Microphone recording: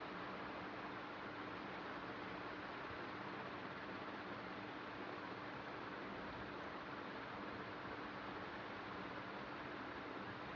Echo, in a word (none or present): none